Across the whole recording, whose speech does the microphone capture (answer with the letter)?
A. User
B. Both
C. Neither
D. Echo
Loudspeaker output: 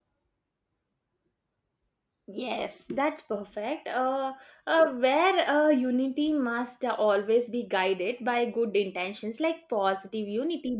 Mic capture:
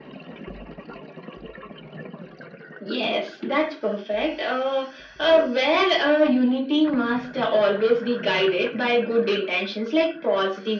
D